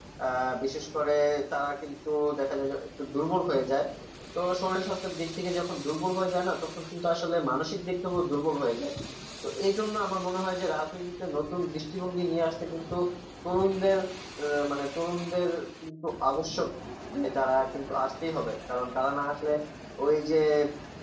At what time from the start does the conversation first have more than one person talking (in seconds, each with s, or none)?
none